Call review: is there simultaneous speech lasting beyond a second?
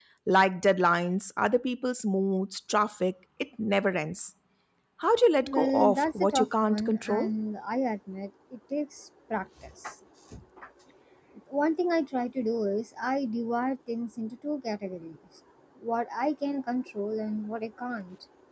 Yes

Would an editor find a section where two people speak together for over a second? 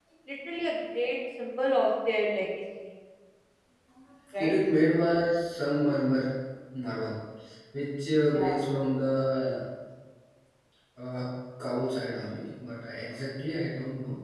No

